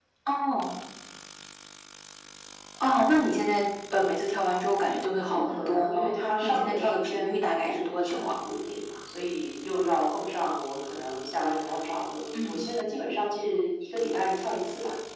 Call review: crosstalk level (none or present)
present